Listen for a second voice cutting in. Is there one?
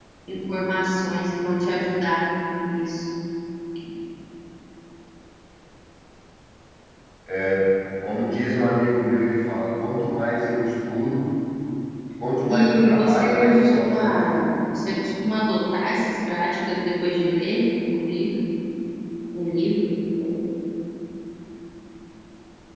Yes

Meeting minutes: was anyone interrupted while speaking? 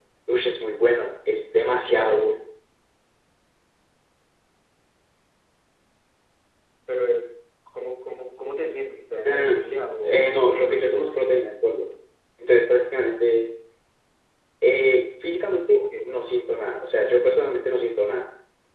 Yes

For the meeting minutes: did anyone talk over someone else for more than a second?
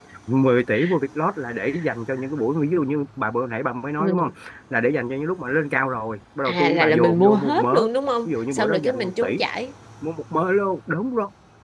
Yes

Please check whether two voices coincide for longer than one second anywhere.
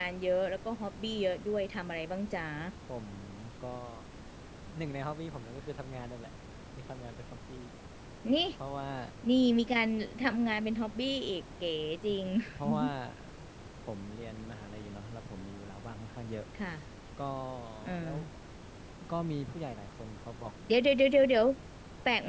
No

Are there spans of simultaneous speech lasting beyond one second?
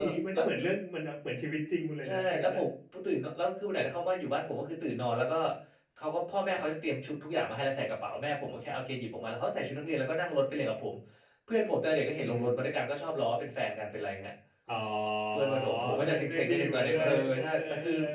Yes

